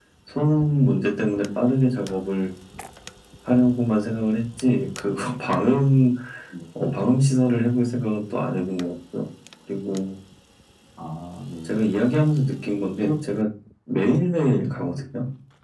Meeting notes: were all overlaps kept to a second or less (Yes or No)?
Yes